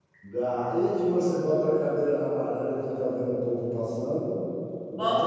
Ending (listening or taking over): taking over